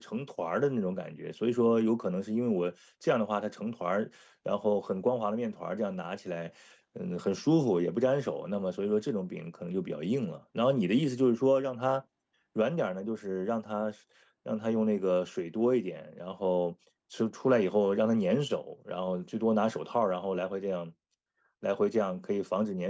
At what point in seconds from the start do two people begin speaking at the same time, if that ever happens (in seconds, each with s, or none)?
none